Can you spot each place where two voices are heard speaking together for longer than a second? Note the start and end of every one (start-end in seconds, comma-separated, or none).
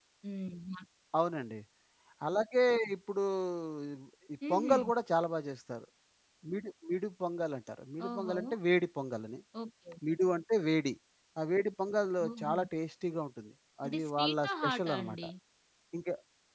13.8-15.2